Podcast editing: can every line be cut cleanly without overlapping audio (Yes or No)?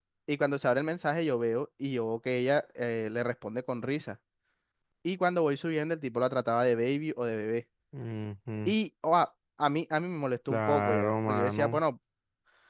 No